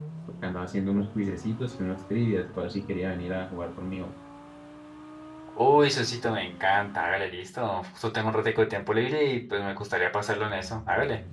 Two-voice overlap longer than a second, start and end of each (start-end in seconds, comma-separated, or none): none